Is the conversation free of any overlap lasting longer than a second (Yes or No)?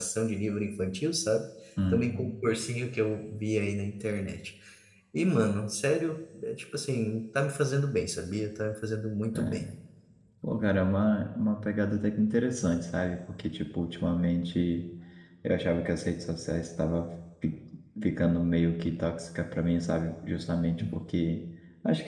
Yes